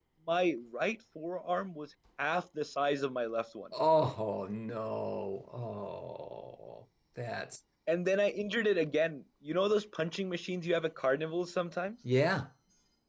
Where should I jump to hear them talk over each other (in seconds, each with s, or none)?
none